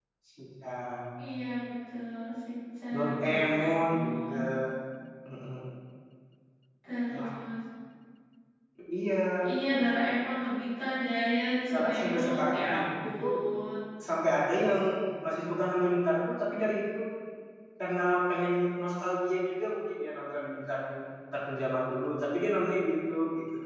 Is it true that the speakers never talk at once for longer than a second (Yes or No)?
No